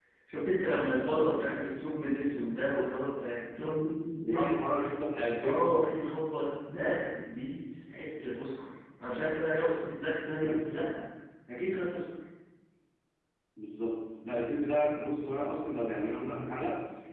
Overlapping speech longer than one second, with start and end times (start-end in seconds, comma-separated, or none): none